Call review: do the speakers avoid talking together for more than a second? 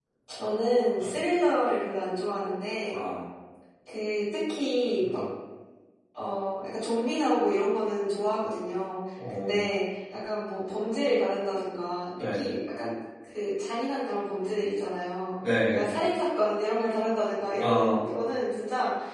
Yes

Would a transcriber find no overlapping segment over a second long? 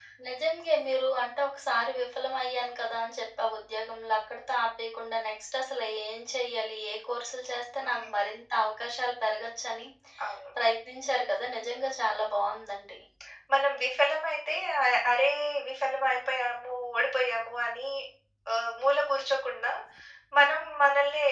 Yes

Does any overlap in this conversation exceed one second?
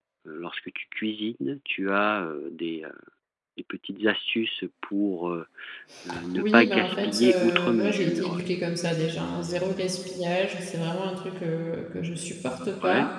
Yes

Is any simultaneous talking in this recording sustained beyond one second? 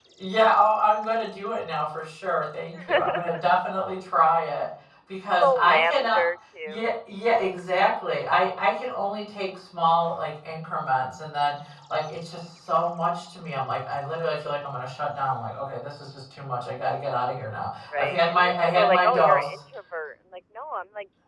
Yes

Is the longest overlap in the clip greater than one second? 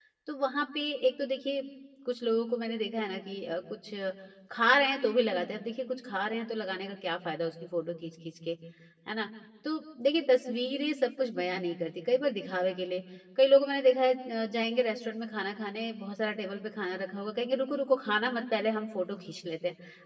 No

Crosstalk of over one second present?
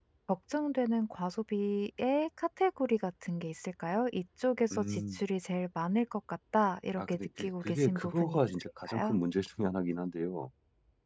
Yes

